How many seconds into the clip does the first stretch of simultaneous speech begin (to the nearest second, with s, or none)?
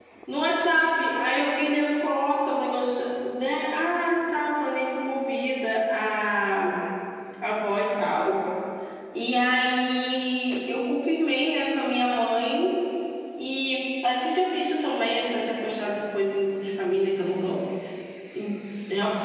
none